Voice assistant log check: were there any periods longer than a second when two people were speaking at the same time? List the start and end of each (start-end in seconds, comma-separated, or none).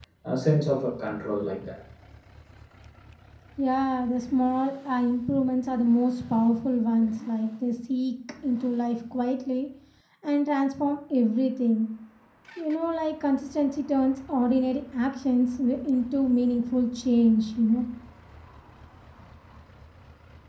none